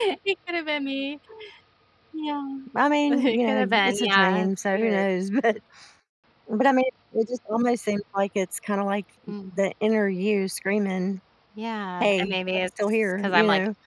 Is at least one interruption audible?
Yes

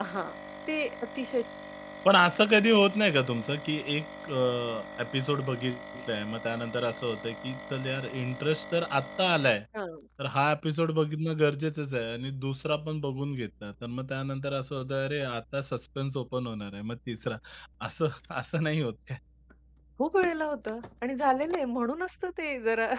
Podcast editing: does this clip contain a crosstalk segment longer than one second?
No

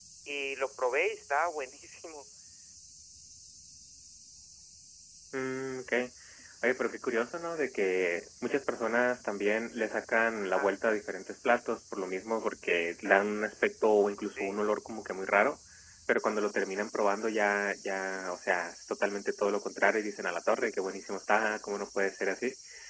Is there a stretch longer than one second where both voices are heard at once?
No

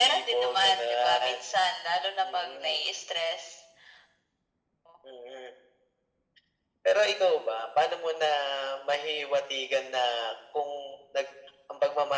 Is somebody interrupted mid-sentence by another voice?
Yes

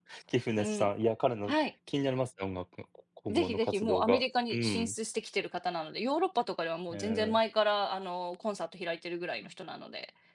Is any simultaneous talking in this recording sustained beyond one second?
Yes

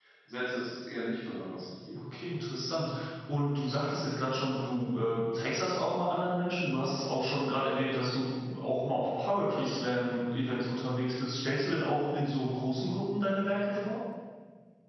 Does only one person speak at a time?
Yes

